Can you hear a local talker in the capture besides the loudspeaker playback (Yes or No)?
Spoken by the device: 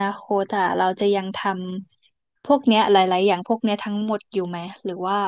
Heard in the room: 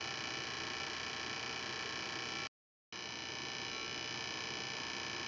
No